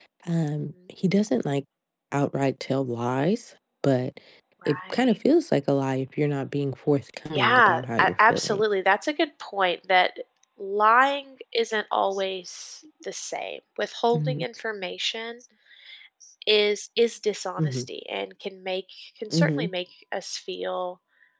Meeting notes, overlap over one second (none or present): present